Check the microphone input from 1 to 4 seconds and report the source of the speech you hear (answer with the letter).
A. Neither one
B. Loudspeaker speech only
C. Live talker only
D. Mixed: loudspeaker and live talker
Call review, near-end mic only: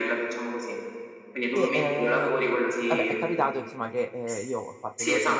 D